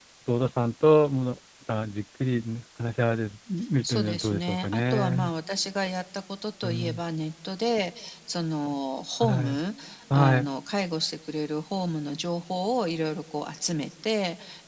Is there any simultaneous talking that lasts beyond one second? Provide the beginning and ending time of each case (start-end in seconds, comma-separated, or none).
3.8-5.3